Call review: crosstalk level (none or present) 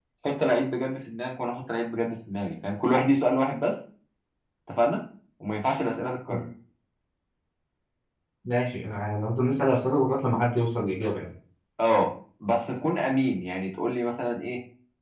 none